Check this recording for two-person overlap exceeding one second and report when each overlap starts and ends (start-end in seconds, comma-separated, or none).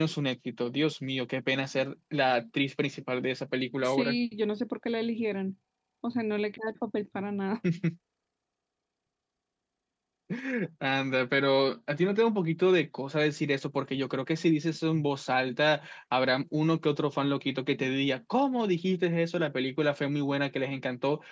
none